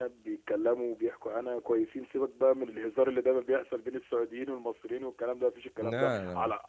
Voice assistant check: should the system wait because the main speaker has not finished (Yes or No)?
Yes